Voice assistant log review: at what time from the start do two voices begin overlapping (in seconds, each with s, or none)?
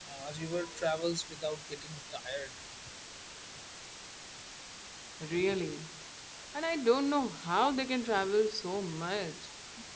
none